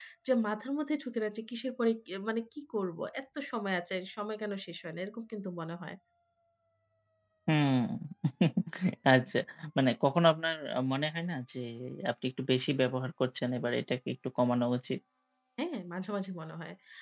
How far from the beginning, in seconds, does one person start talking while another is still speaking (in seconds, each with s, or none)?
none